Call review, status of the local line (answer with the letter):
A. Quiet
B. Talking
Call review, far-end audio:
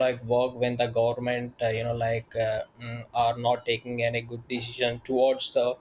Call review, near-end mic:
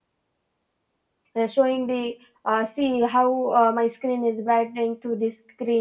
B